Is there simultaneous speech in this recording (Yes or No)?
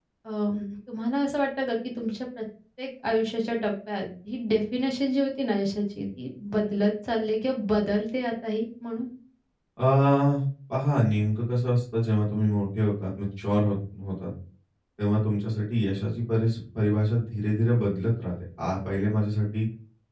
No